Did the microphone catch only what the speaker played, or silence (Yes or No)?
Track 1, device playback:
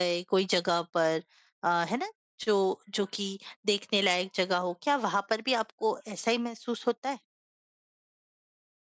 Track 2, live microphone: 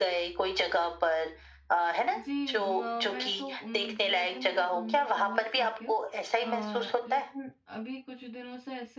No